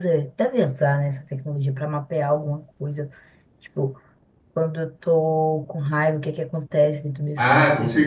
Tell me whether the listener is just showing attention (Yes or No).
No